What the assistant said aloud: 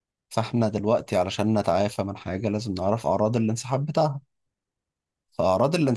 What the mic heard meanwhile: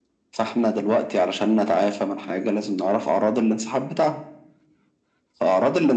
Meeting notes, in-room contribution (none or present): none